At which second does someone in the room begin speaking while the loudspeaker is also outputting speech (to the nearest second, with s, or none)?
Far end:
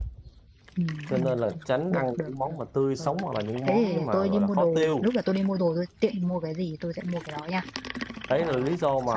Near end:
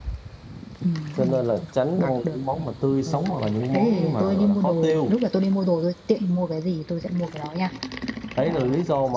none